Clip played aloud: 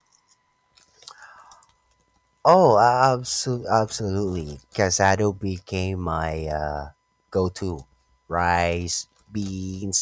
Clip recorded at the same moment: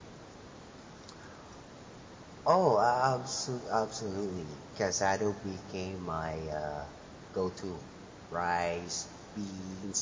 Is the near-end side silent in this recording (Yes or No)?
Yes